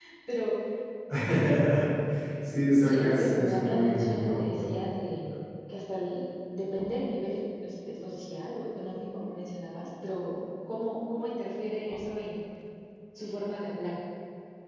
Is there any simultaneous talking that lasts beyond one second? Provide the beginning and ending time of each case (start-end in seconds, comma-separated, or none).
2.9-4.7